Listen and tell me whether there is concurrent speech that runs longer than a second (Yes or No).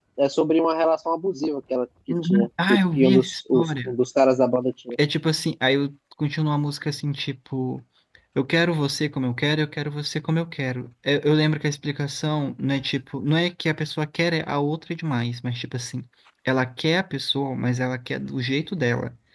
Yes